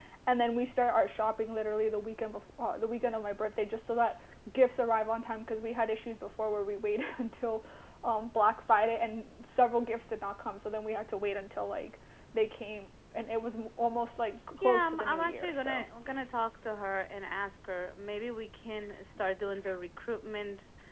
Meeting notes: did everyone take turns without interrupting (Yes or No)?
No